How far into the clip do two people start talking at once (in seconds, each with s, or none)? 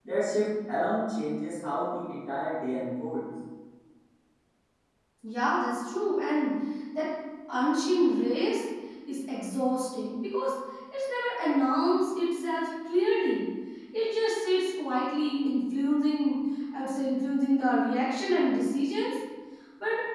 none